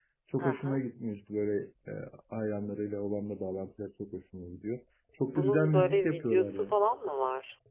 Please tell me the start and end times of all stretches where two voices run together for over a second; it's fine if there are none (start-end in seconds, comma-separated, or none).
5.2-6.7